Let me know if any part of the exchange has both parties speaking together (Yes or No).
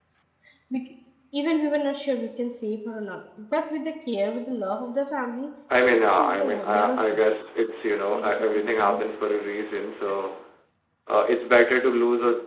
Yes